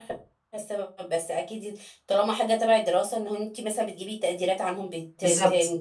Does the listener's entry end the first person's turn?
Yes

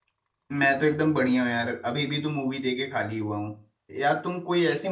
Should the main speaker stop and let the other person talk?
No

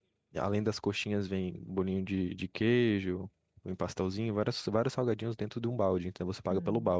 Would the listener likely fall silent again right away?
No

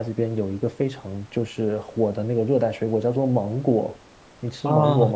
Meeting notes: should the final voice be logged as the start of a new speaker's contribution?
Yes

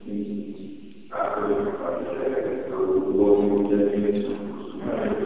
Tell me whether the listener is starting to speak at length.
No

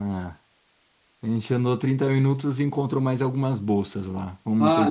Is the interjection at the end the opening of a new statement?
Yes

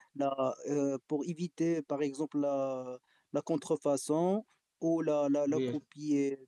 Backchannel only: Yes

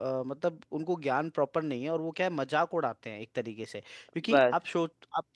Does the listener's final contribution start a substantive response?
No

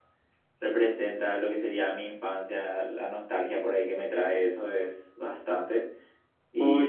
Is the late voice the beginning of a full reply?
Yes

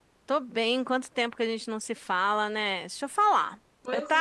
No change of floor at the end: Yes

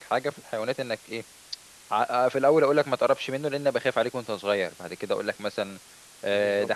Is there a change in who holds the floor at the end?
No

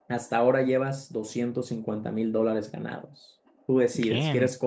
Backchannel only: Yes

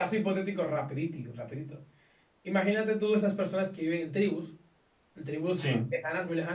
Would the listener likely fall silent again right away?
Yes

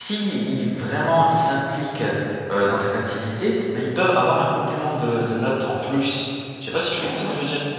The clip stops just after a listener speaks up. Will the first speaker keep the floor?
No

